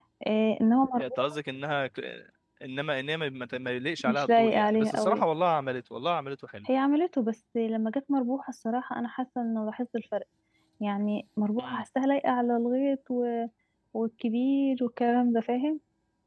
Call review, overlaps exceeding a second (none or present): present